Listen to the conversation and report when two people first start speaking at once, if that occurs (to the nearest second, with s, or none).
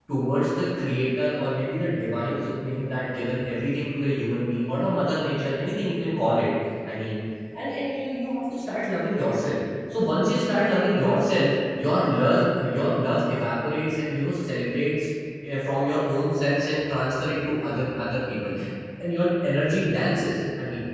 none